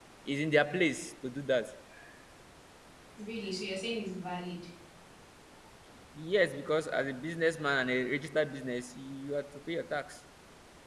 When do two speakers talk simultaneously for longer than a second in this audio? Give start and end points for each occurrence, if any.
none

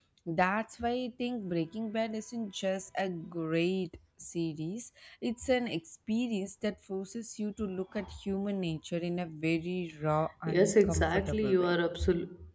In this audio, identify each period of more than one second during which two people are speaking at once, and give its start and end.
10.5-11.7

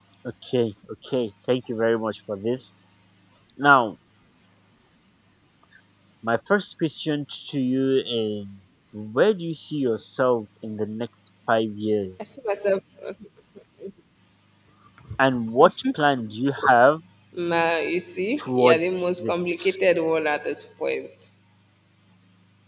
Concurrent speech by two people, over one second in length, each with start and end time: none

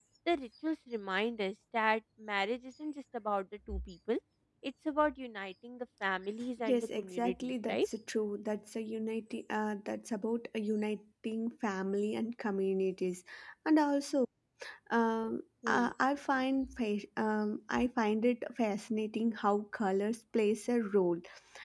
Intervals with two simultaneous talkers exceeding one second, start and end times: 6.7-7.9

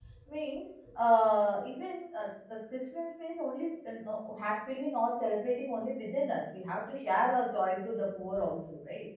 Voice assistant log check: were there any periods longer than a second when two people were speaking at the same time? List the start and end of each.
none

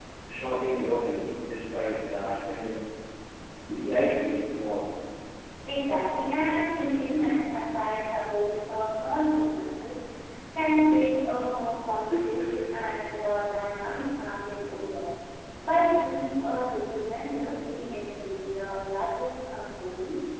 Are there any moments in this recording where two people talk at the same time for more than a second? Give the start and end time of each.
none

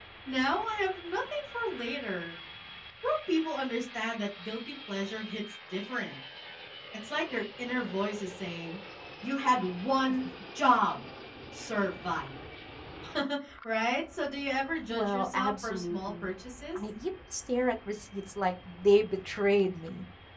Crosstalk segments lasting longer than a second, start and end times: 14.9-16.3

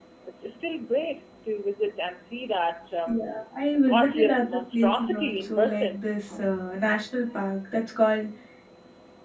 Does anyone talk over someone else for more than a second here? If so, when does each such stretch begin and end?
3.9-6.0

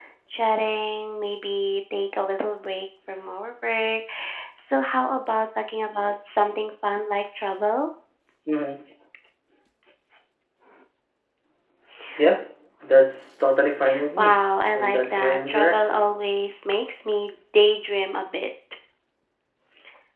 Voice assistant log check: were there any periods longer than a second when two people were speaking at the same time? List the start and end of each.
14.8-16.1

